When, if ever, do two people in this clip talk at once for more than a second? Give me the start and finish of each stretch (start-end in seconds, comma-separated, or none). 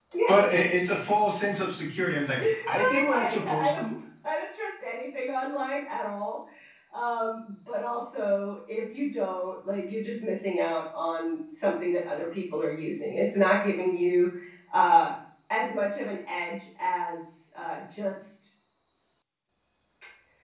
2.4-3.9